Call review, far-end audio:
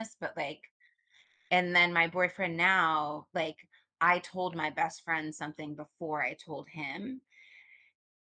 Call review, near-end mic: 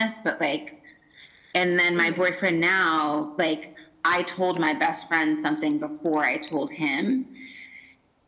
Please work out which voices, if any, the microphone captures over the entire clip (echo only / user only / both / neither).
both